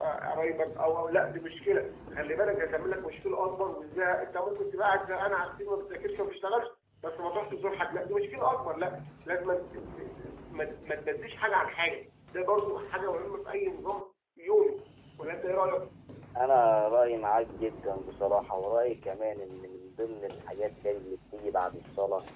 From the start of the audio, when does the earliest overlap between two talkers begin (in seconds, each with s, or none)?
none